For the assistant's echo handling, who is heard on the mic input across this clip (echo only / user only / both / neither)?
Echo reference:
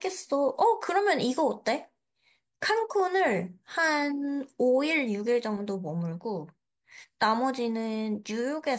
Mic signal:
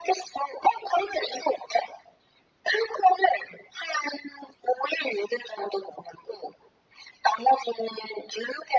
echo only